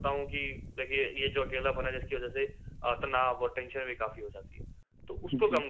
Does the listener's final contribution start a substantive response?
No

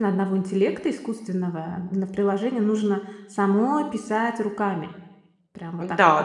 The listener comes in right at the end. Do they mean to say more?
Yes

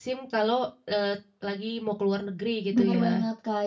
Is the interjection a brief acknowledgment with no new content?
No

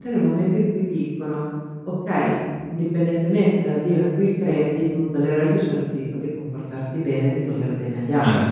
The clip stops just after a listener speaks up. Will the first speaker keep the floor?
No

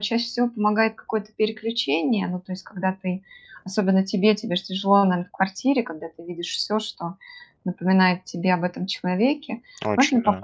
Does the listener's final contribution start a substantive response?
No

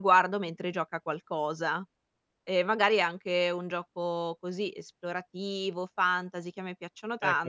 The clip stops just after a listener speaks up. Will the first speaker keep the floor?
No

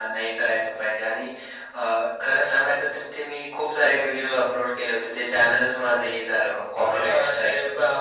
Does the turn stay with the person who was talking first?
No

